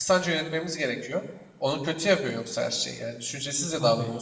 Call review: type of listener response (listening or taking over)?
taking over